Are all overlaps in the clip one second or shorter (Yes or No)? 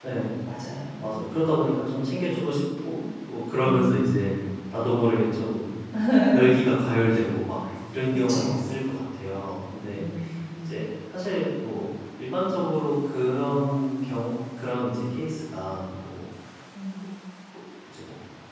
Yes